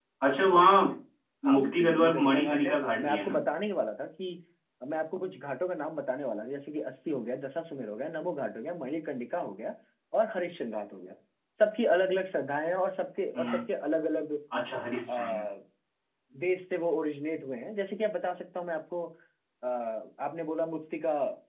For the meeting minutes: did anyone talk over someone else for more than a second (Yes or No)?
Yes